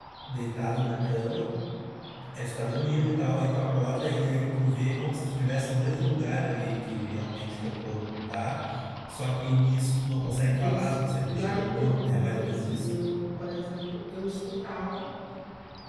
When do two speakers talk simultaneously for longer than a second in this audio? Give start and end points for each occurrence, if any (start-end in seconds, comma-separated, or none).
10.6-12.8